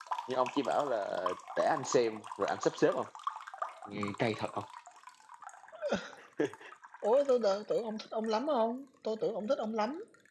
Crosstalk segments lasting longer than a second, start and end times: none

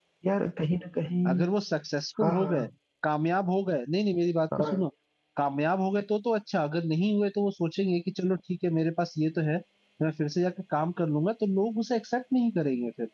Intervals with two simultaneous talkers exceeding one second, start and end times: none

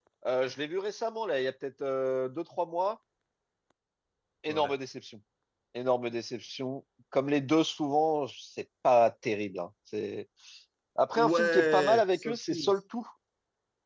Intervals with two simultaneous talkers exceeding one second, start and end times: 11.1-12.7

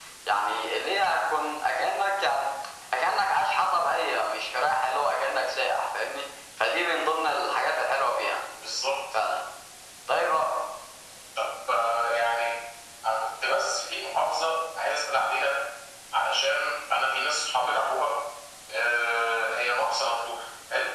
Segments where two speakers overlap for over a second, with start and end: none

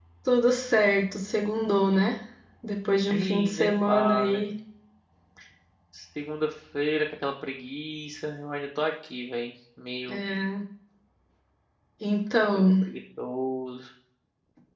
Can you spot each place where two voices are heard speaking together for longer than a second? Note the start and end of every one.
3.1-4.4

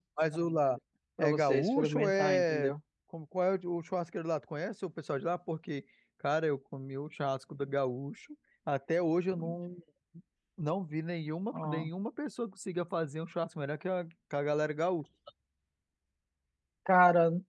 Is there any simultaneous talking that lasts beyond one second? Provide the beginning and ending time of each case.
1.2-2.7

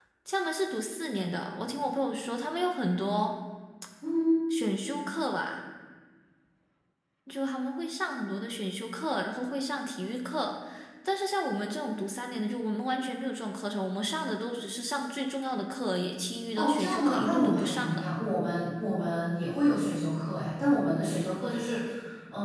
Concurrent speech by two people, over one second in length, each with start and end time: 16.6-18.1

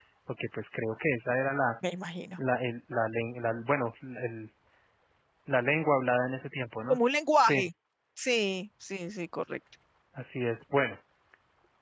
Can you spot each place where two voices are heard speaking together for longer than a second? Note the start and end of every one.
none

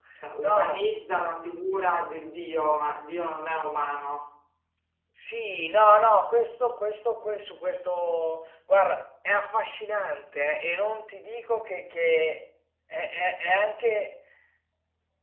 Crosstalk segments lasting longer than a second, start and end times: none

